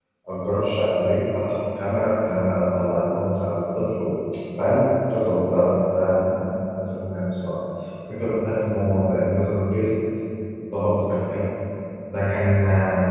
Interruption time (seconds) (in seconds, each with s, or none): none